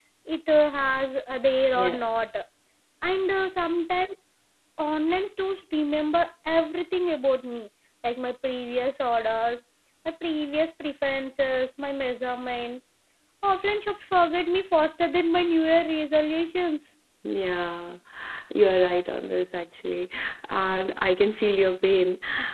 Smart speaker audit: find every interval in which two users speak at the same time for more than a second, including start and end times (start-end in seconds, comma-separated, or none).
none